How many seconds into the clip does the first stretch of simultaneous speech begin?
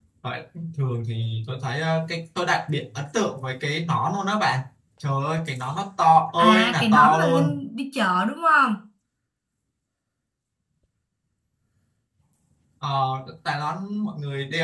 6 s

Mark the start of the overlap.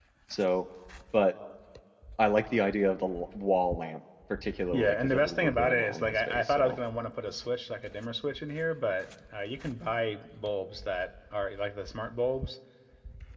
5 s

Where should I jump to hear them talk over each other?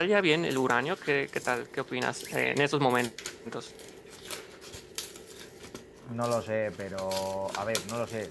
none

